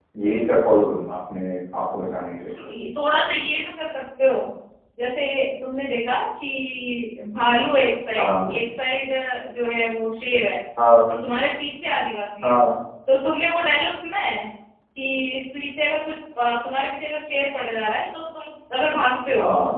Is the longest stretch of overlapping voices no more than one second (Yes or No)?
Yes